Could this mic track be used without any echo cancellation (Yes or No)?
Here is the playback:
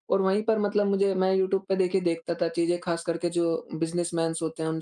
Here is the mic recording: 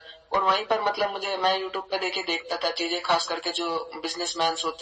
No